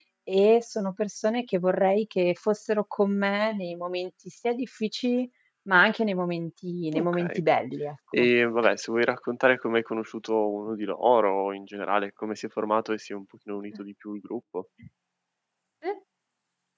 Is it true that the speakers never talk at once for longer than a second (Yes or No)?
Yes